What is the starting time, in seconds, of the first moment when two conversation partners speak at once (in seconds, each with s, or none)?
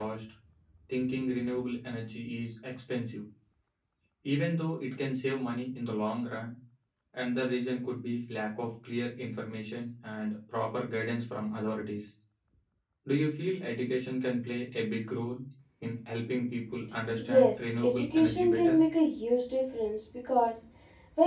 17.2 s